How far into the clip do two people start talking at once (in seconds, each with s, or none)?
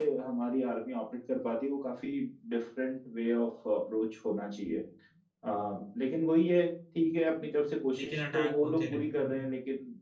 8.0 s